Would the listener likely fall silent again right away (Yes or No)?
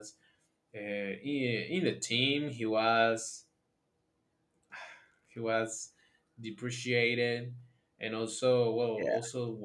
Yes